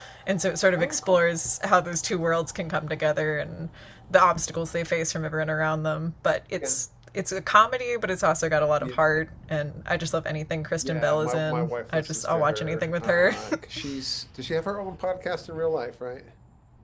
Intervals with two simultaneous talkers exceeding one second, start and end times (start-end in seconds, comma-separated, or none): 10.8-13.3